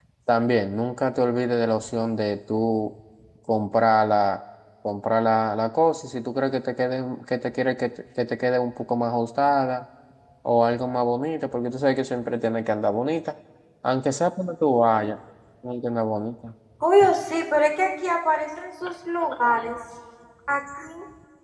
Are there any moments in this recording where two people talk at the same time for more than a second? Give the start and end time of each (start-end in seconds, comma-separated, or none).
none